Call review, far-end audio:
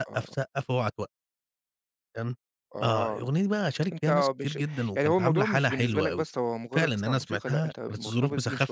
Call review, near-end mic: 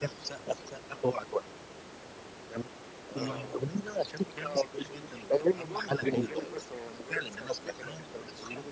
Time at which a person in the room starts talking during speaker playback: 3.1 s

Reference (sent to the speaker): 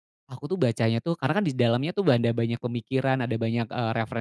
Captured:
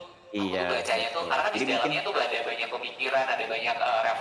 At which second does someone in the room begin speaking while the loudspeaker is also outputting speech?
0.4 s

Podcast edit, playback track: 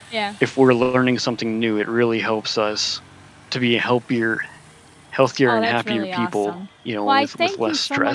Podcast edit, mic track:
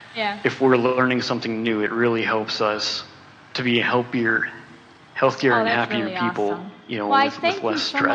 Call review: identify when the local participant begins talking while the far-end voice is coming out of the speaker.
none

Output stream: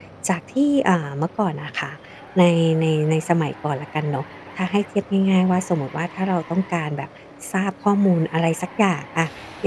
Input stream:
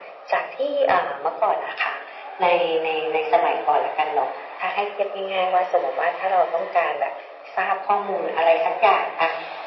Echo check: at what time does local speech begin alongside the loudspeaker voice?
none

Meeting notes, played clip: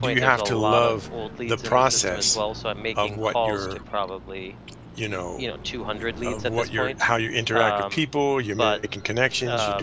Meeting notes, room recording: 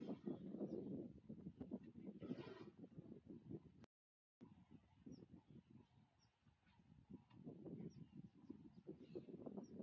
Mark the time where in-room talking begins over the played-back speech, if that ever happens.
none

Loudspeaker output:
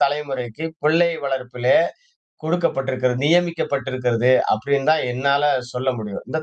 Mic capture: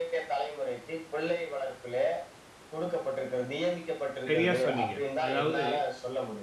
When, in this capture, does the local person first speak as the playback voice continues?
4.3 s

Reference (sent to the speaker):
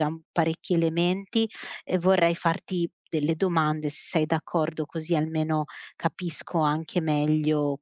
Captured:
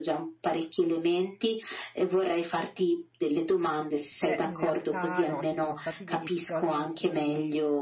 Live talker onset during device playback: 4.2 s

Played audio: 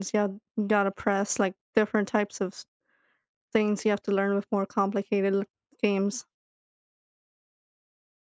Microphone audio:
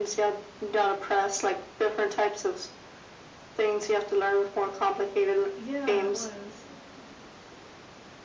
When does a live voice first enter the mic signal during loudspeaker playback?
5.5 s

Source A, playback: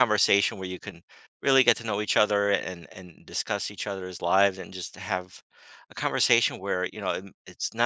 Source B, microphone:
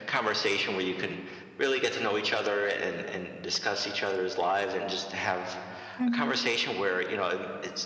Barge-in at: 6.0 s

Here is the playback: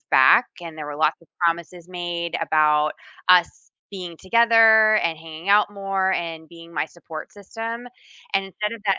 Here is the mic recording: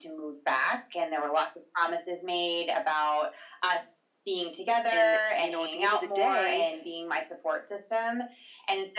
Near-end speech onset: 4.9 s

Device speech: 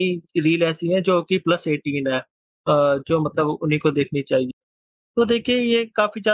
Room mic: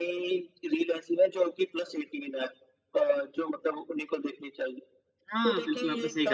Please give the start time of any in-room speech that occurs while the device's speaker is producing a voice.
5.3 s

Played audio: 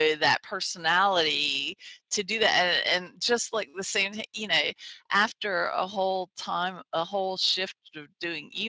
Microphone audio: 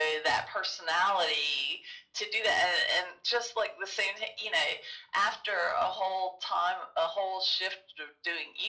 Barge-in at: none

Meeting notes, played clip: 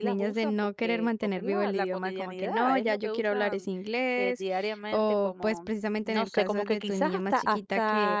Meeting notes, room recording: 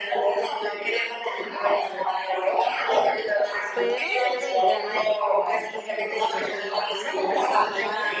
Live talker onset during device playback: 3.7 s

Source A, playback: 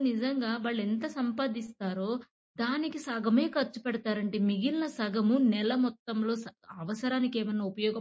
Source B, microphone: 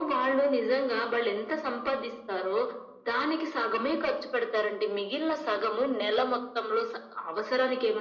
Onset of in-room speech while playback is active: none

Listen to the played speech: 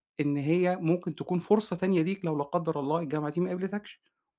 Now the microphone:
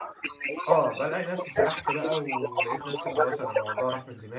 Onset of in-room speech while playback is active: 0.7 s

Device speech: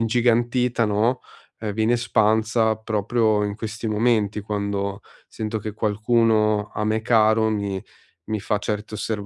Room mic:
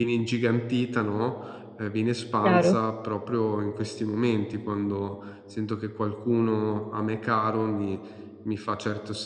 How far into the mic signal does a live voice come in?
2.4 s

